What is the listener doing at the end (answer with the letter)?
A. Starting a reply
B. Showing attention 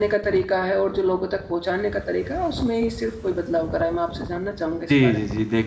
A